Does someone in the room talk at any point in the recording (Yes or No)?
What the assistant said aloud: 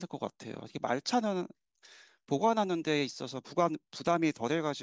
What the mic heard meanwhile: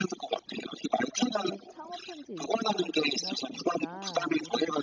Yes